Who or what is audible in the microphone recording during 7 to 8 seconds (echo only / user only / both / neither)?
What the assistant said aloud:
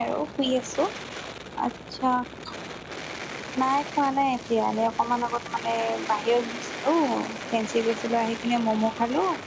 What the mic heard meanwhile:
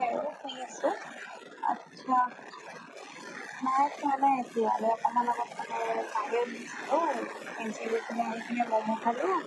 echo only